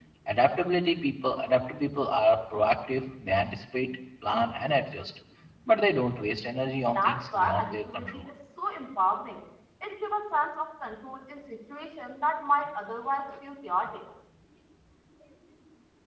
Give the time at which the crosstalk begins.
6.9 s

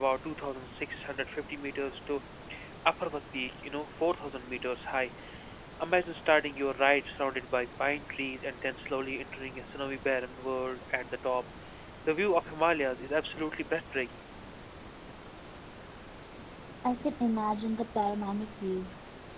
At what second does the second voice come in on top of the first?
none

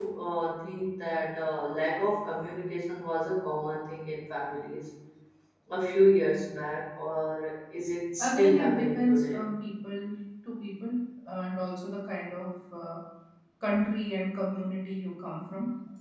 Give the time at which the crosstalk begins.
8.2 s

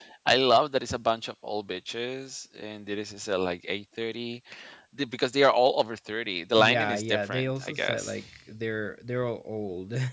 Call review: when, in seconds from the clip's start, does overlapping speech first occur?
6.6 s

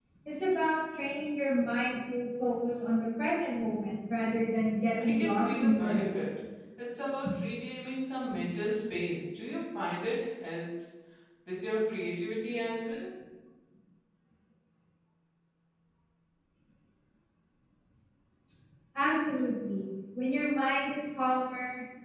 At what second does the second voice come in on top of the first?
5.0 s

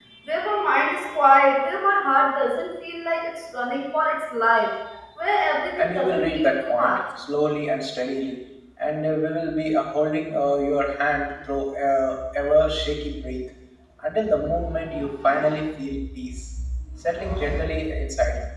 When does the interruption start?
5.8 s

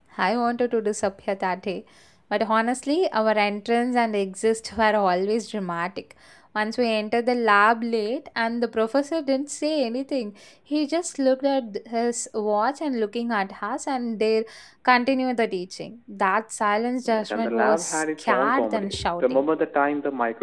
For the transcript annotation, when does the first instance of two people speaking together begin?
17.1 s

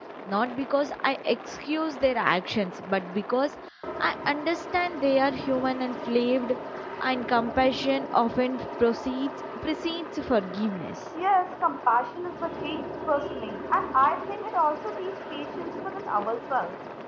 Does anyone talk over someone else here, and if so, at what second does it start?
none

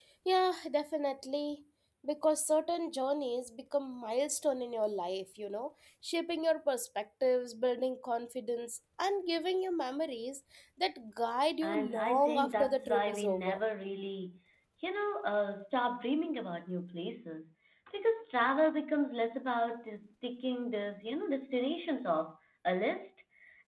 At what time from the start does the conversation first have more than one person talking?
11.6 s

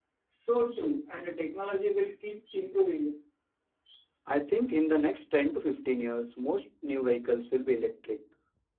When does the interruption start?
none

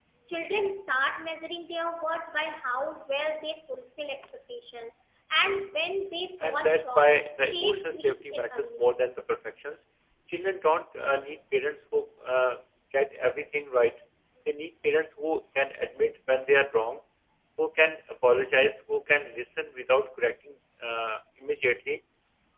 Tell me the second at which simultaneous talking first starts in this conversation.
6.4 s

